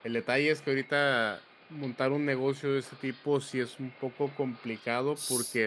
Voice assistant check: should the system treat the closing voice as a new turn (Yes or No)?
No